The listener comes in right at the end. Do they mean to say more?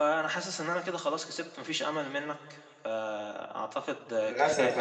Yes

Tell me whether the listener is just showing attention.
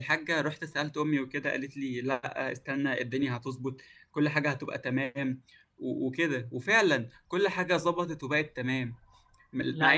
Yes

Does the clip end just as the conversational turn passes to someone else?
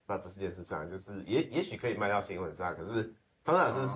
No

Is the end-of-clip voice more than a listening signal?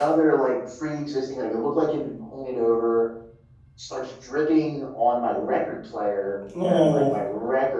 No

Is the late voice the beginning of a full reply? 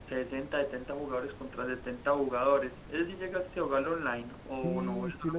Yes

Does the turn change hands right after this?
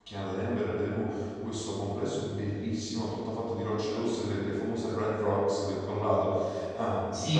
Yes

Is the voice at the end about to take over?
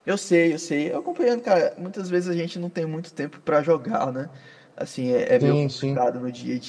No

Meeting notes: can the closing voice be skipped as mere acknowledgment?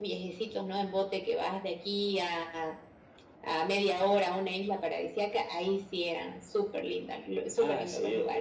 No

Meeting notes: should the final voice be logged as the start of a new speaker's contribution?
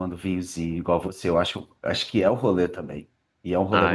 Yes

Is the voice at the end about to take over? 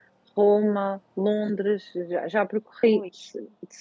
No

